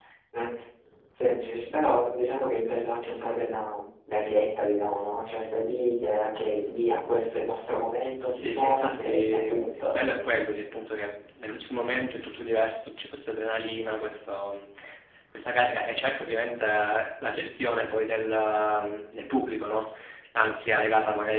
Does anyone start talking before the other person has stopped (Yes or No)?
Yes